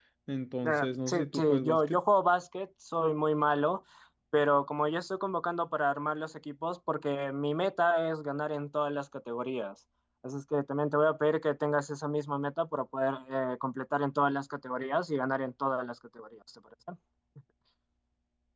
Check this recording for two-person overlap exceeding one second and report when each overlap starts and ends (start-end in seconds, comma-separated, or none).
0.6-2.0